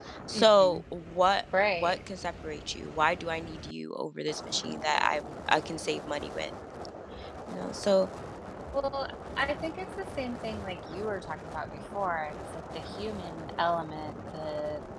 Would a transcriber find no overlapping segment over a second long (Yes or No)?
Yes